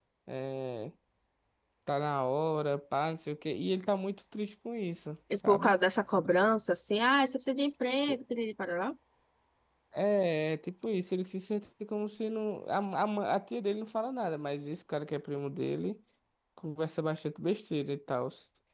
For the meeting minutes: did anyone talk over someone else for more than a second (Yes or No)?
No